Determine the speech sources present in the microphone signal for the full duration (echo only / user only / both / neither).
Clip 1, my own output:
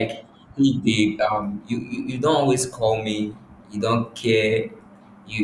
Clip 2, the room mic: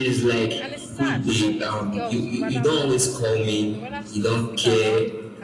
both